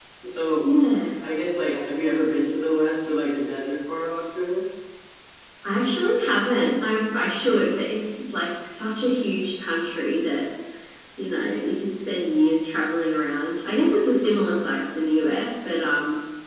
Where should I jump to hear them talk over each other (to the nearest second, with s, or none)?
none